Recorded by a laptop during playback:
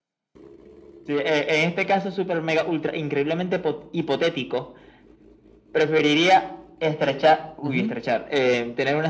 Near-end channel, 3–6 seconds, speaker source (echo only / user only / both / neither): echo only